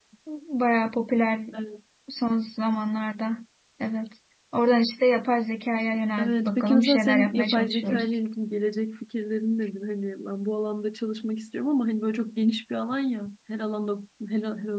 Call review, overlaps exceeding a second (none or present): present